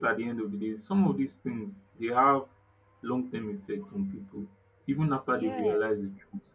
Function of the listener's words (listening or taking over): listening